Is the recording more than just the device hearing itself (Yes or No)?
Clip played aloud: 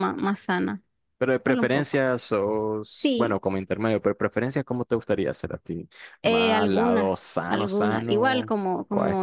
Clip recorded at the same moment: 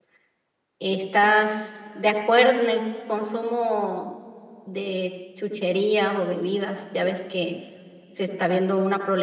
Yes